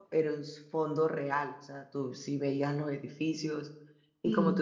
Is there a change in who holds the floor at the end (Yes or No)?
No